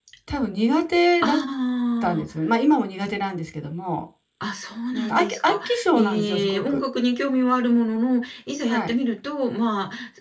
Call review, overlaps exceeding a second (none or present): present